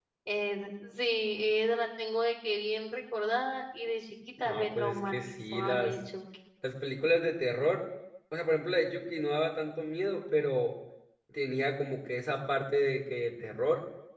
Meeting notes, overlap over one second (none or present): present